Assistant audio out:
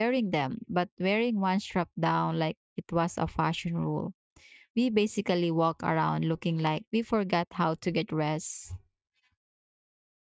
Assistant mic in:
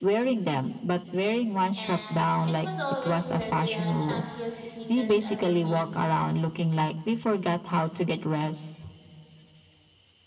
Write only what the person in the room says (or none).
And it was always paired with the chunkiest sneakers ever made.